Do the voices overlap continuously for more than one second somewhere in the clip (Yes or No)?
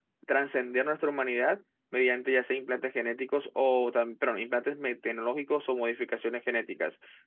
No